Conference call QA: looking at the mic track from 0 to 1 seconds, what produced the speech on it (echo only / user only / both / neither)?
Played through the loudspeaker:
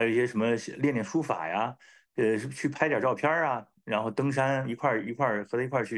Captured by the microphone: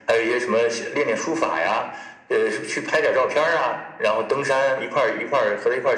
echo only